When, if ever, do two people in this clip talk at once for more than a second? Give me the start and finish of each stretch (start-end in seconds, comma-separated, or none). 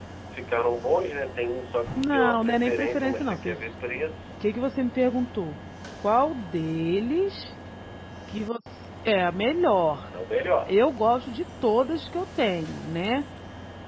2.0-3.6